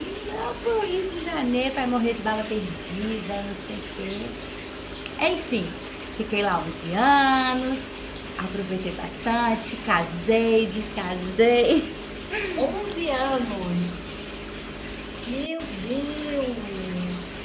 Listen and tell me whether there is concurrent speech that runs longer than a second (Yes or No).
No